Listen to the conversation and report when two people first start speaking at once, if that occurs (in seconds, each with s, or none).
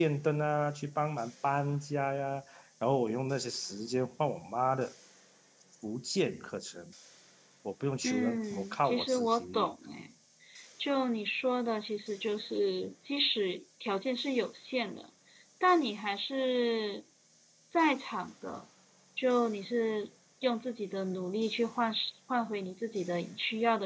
8.0 s